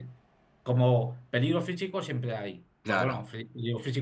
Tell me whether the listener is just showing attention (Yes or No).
Yes